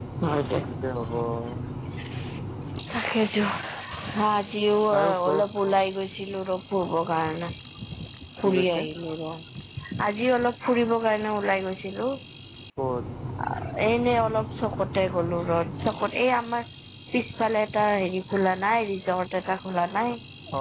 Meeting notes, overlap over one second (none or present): none